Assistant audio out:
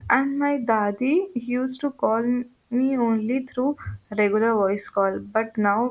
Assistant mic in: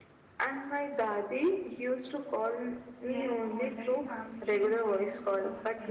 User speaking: Yes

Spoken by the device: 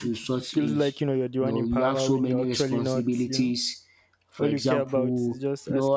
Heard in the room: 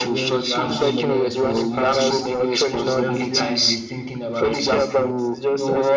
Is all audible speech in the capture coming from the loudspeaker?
No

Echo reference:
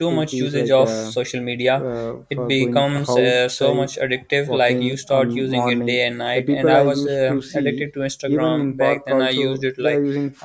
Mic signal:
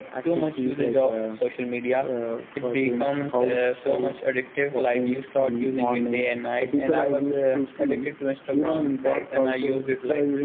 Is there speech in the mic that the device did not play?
No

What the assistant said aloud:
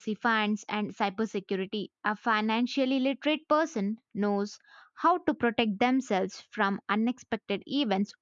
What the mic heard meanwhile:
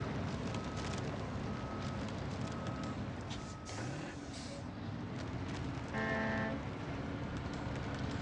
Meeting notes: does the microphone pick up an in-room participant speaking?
No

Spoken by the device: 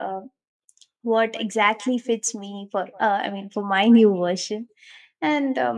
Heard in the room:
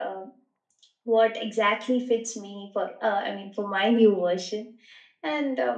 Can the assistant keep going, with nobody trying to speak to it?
Yes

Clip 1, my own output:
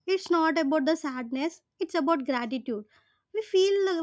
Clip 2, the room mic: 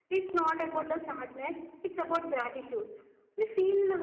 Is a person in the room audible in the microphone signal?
No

